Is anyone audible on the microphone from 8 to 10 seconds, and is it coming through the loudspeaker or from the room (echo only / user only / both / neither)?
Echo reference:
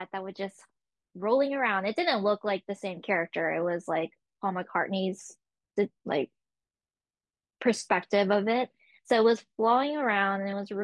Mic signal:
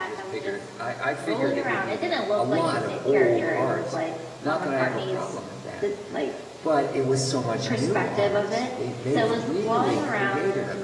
both